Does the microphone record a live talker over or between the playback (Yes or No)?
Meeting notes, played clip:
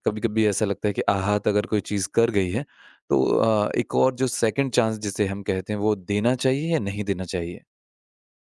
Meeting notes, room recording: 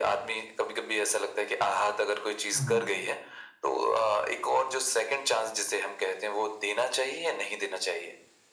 Yes